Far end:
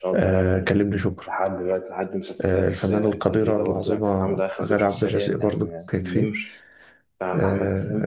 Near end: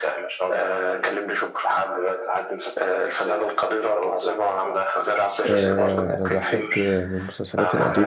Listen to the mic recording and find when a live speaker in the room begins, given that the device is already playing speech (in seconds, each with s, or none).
5.5 s